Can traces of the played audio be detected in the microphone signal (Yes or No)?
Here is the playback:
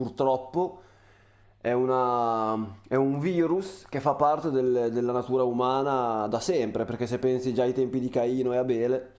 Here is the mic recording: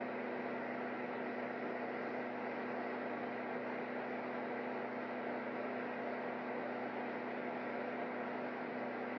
No